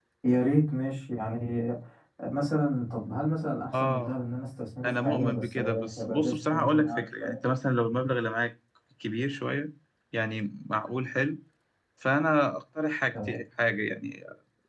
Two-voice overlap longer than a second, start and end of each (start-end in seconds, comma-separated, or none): 4.8-7.4